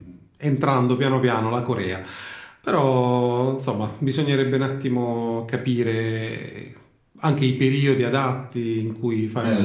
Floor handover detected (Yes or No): Yes